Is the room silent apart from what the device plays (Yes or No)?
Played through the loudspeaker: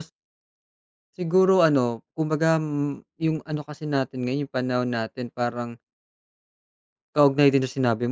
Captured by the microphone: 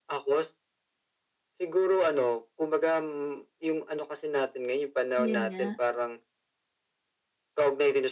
No